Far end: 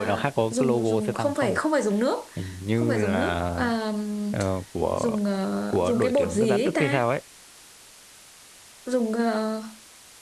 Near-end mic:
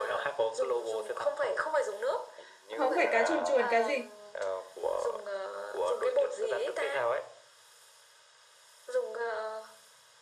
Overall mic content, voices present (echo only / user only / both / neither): both